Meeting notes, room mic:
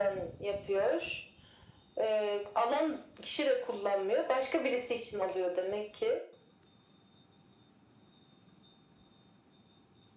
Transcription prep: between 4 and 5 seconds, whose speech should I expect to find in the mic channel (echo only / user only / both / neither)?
echo only